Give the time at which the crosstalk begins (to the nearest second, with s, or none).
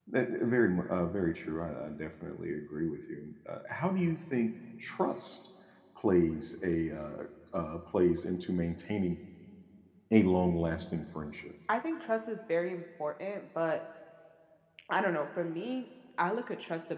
none